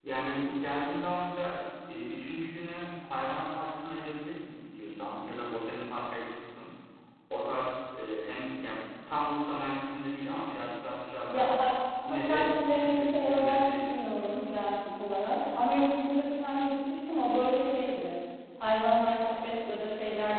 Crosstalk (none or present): present